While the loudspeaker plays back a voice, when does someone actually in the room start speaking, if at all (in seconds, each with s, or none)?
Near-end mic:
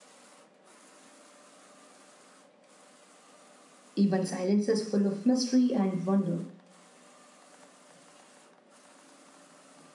3.9 s